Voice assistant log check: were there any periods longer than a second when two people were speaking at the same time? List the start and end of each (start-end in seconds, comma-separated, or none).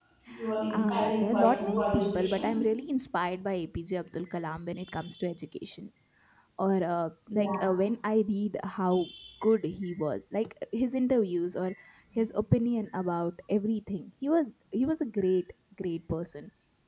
0.7-2.5